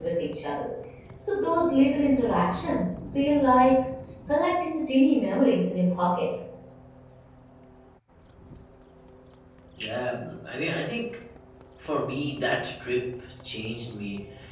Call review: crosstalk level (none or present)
none